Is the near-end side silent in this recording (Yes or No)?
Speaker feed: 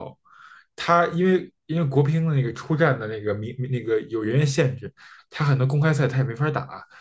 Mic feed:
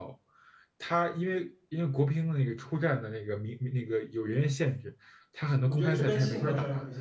No